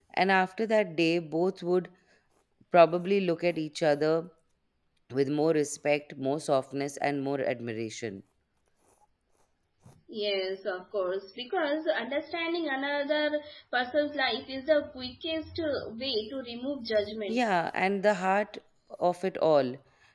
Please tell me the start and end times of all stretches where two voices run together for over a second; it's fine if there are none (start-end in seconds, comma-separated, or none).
none